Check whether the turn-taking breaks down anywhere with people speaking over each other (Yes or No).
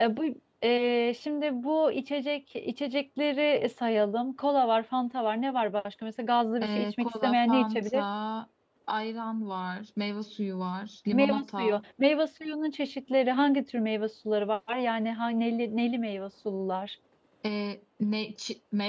Yes